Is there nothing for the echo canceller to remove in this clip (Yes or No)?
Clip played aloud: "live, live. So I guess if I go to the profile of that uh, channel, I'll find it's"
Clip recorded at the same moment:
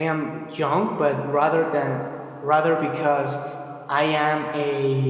Yes